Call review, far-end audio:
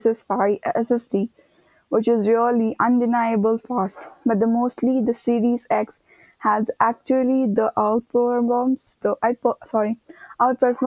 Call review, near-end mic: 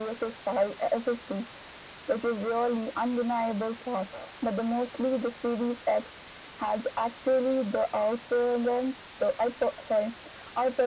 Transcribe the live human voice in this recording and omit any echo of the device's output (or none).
none